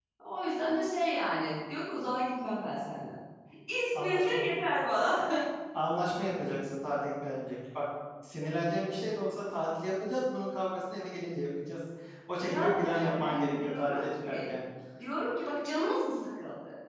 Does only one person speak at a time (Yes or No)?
No